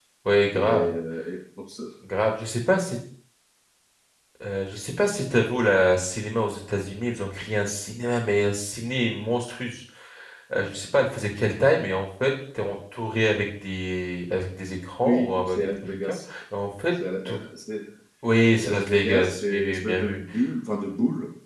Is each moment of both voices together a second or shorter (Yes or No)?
No